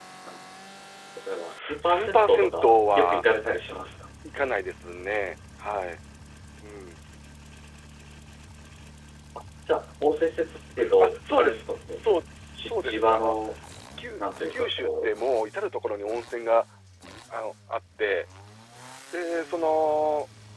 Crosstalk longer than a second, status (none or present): present